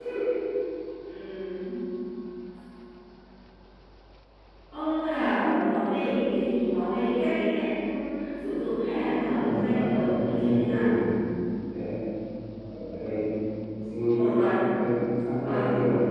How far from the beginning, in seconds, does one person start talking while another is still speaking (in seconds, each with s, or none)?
9.2 s